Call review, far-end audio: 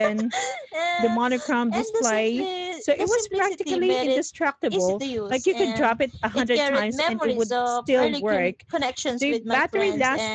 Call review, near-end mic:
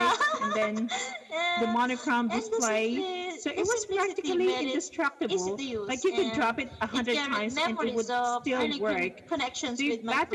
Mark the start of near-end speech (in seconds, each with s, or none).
none